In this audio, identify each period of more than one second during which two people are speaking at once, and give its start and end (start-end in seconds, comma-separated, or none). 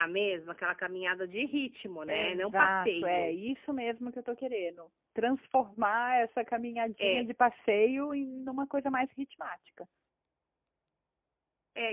2.1-3.4